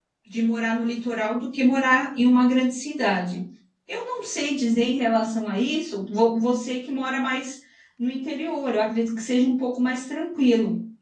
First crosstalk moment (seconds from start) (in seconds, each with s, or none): none